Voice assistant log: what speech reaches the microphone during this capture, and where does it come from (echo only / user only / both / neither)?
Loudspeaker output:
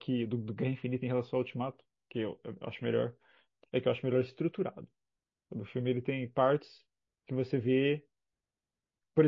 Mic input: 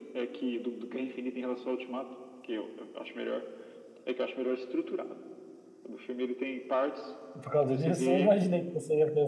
both